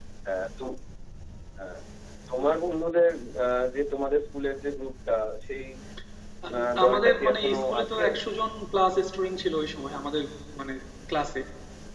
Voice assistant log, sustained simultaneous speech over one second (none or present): present